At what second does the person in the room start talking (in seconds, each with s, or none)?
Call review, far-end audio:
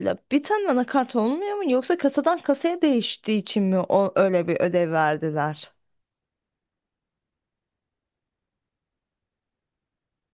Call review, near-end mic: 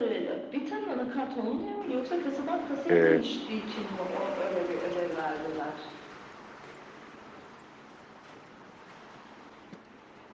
2.9 s